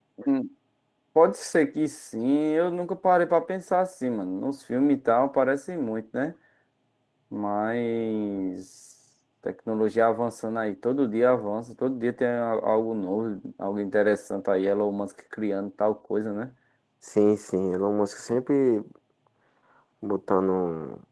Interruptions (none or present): none